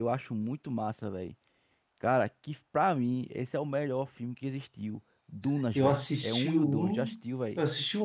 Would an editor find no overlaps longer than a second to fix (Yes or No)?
No